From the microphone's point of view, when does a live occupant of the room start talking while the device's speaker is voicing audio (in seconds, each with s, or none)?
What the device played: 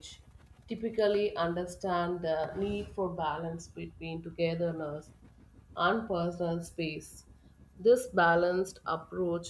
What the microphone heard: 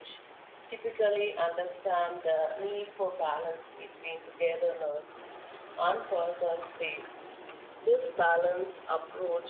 none